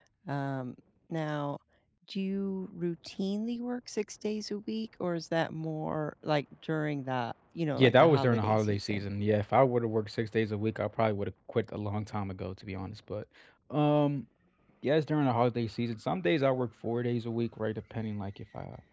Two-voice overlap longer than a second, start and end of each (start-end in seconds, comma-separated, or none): 7.8-9.0